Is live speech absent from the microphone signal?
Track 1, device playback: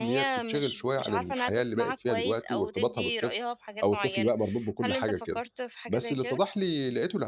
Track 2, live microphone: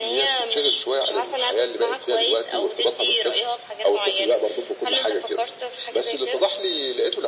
Yes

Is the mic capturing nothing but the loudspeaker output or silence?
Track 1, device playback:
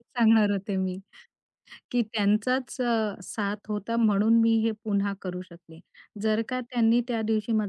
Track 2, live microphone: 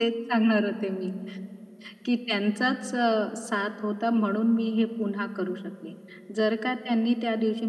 Yes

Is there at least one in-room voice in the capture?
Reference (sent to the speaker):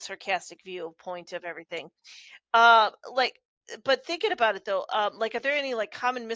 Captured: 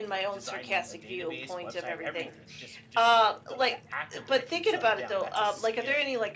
Yes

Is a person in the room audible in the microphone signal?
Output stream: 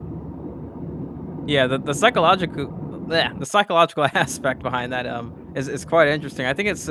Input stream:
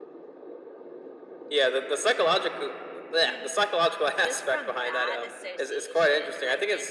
Yes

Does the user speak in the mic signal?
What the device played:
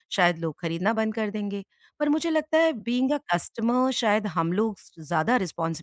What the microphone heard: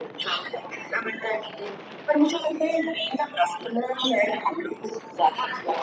No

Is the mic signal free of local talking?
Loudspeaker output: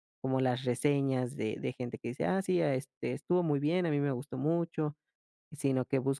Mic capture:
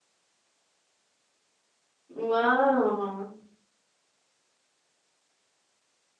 No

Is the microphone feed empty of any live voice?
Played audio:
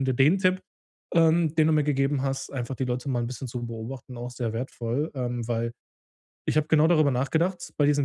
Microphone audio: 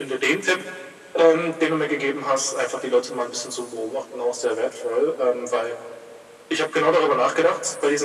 Yes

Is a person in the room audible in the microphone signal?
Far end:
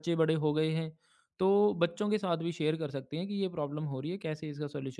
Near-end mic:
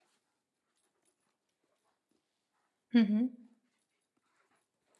Yes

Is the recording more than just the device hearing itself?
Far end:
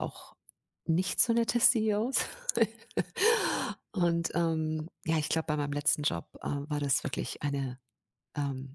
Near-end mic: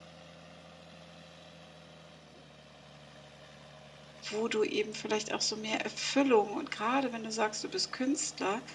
Yes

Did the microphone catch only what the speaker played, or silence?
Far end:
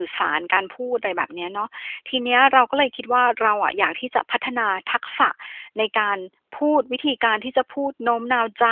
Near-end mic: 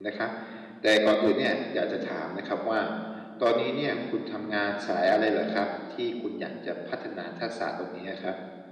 No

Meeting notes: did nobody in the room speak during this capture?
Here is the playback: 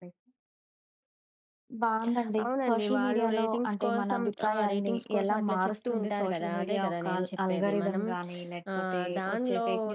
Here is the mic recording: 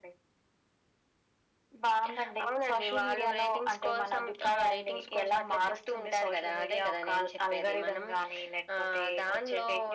Yes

